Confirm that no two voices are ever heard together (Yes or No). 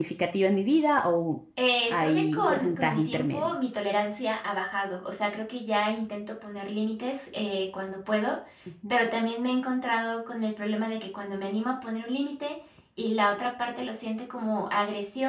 No